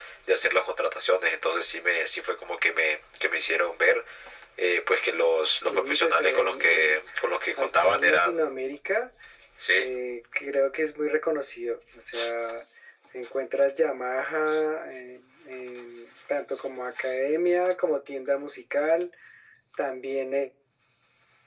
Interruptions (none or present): present